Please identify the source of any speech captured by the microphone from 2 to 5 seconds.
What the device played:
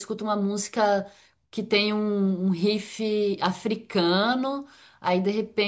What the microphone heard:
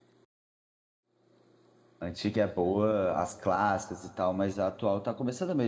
user only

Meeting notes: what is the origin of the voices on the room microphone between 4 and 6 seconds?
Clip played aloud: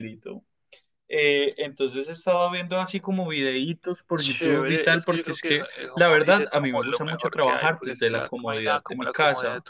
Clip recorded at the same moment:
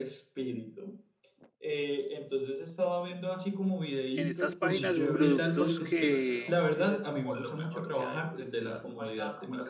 both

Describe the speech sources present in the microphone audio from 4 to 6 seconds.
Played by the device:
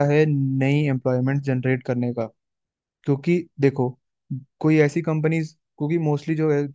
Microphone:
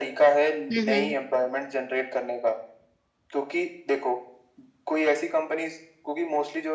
echo only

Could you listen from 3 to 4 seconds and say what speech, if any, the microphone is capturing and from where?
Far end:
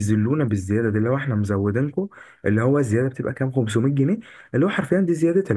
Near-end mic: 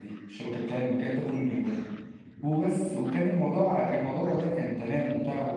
user only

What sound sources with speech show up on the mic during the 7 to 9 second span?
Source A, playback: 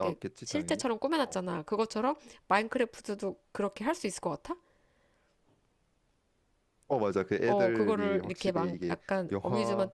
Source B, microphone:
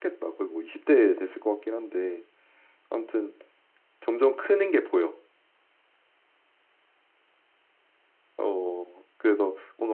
user only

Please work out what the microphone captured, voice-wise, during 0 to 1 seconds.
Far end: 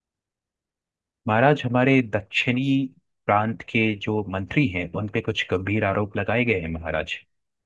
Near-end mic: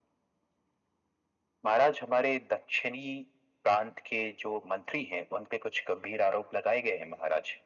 neither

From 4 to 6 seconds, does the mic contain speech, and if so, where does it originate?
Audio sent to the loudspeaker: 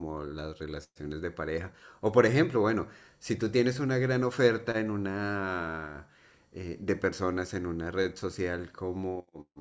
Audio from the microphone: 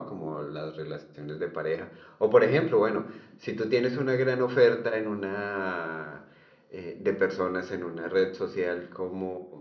echo only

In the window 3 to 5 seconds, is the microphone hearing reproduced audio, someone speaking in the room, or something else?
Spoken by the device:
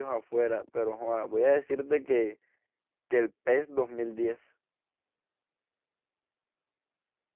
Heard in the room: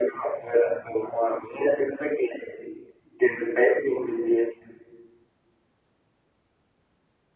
echo only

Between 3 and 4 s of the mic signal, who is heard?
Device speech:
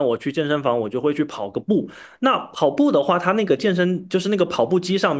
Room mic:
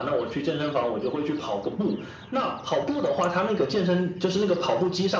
echo only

